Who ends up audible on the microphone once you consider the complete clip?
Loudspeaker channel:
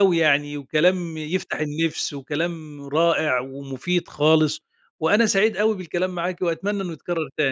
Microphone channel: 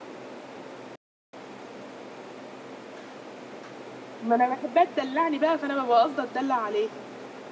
user only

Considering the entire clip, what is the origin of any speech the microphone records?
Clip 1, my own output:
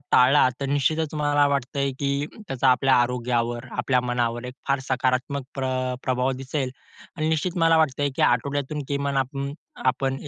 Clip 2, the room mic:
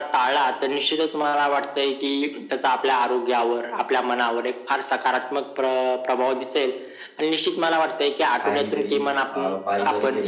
both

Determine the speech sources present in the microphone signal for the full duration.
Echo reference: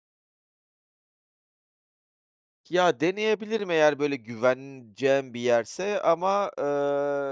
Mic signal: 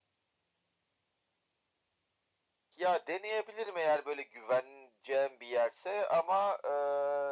echo only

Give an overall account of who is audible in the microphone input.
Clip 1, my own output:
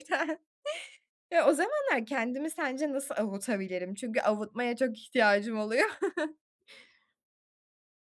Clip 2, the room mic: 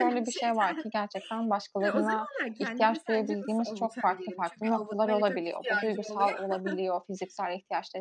both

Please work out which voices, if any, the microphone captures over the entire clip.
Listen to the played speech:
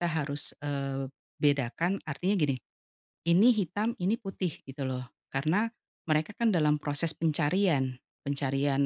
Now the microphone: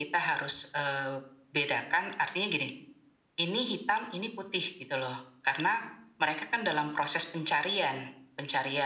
echo only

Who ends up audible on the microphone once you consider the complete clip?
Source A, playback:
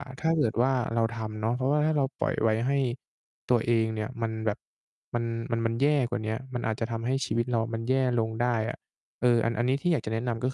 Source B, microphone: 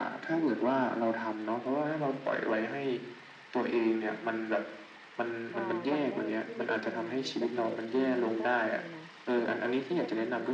both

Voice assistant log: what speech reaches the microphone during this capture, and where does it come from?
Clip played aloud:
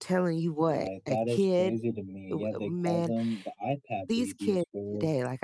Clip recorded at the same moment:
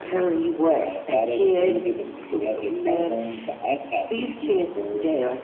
echo only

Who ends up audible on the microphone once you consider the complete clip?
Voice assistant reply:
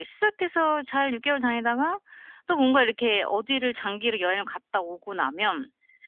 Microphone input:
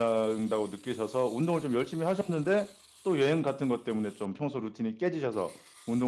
user only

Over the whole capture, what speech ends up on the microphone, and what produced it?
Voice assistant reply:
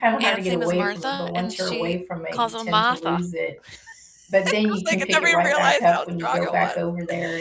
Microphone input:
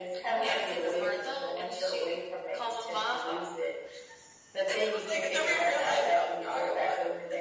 echo only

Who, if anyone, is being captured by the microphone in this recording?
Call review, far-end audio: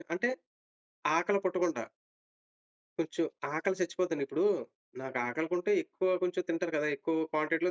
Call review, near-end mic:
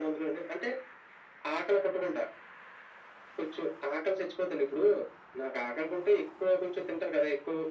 echo only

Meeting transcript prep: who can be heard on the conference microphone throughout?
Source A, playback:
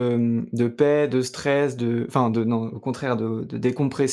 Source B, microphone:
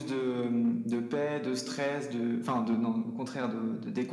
echo only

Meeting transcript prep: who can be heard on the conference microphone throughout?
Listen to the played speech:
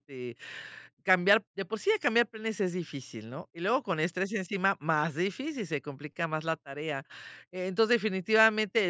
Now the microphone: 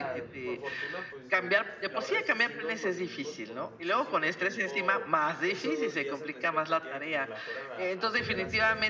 both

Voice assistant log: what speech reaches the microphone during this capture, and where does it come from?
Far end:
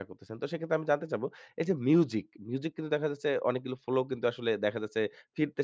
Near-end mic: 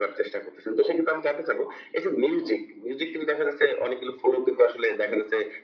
echo only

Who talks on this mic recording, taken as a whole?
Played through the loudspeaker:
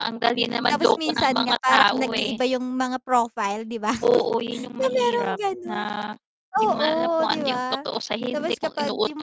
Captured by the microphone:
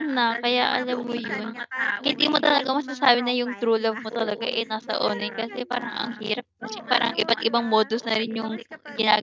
both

